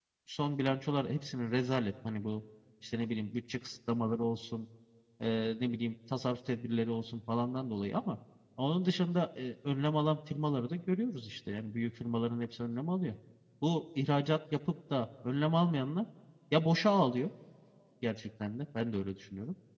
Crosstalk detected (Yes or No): No